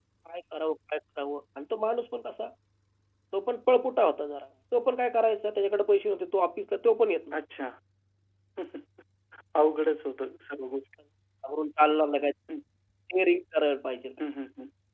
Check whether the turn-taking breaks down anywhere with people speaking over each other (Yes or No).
No